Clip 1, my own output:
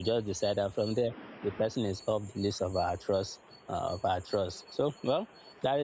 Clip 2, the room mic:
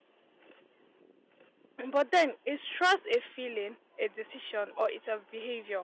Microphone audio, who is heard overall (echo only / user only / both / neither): user only